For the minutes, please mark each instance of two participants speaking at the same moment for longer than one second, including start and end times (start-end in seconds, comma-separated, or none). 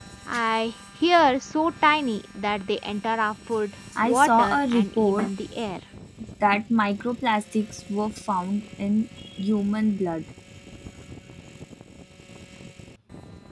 4.0-5.3